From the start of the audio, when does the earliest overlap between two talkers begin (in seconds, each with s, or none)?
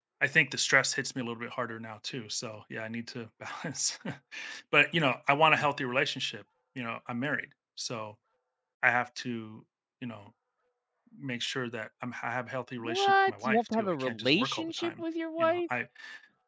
12.8 s